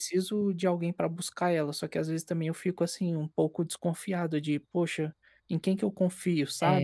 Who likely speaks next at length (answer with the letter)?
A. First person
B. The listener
B